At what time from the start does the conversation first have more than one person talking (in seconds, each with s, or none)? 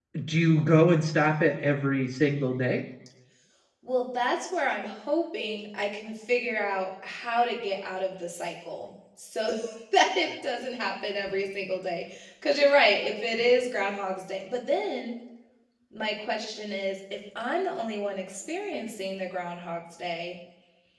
none